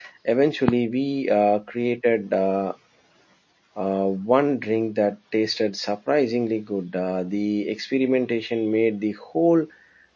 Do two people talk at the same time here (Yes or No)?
No